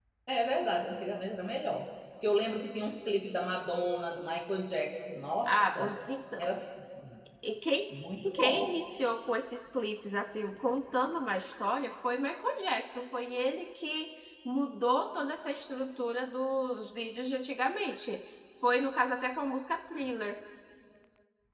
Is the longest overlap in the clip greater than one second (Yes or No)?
No